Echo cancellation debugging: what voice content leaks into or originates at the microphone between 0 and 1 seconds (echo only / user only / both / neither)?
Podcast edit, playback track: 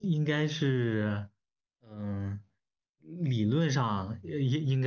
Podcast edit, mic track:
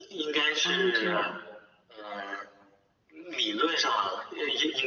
both